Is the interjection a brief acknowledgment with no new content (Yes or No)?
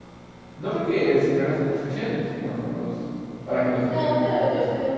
No